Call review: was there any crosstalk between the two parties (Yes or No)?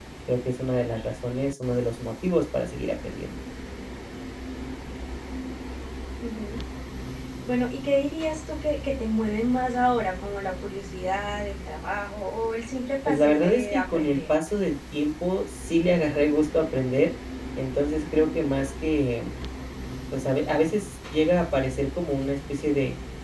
Yes